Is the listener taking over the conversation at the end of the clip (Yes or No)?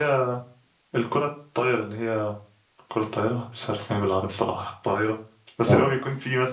No